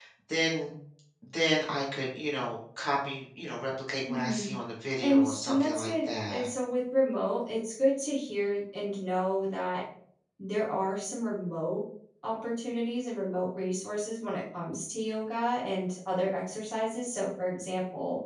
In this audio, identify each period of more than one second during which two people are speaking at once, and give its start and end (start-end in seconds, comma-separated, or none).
5.0-6.5